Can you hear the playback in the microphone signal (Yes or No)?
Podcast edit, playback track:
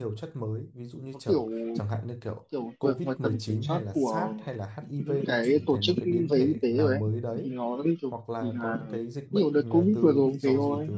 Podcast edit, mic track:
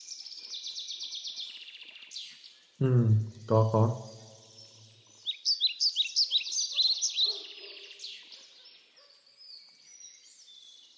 No